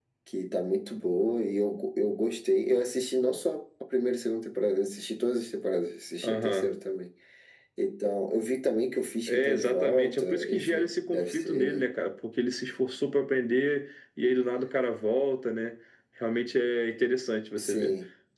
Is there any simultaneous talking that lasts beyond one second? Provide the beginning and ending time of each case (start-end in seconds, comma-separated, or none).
9.3-11.8